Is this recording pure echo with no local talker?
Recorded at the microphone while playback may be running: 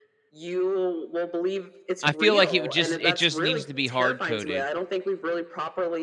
No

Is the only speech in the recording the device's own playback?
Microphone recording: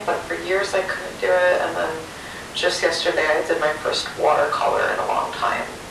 Yes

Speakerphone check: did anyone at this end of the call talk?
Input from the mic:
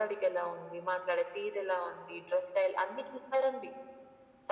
No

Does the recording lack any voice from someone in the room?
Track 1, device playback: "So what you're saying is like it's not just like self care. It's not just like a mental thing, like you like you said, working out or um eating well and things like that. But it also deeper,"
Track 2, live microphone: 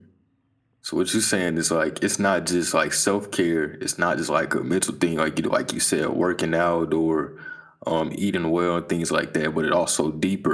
Yes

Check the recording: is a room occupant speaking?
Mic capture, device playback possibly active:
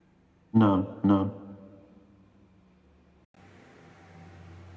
Yes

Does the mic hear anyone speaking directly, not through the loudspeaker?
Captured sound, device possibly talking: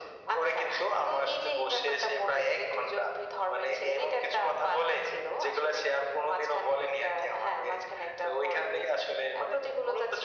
No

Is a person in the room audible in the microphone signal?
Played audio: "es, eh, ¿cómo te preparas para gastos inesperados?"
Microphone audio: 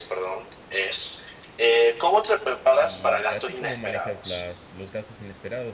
Yes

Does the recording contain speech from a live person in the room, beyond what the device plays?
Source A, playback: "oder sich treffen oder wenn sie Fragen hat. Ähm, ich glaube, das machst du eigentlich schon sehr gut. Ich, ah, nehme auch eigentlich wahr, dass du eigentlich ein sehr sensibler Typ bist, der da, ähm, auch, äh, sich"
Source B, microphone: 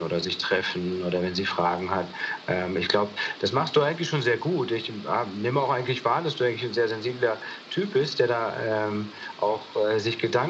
No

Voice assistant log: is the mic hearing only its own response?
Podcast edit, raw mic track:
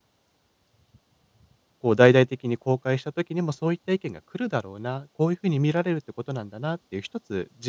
No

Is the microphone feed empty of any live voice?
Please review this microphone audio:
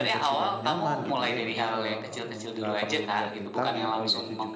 No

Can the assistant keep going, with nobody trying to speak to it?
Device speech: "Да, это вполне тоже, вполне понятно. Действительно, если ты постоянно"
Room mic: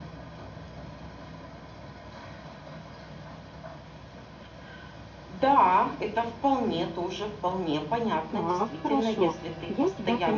No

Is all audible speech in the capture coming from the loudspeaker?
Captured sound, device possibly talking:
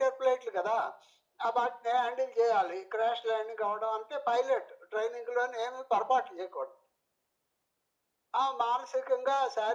Yes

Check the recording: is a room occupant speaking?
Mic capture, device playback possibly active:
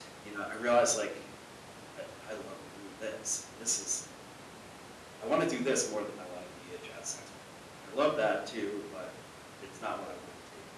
No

